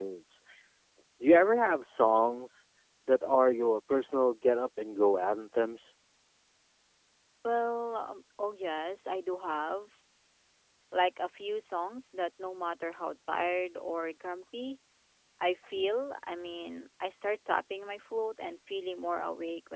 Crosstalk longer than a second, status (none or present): none